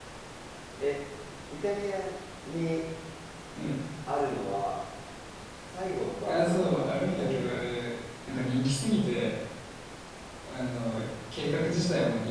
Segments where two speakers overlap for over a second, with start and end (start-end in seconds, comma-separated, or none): 6.3-7.9